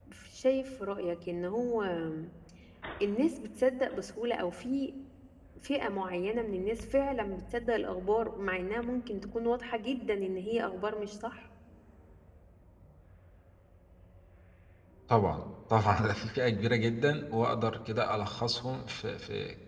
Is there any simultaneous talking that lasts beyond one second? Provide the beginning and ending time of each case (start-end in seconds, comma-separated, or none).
none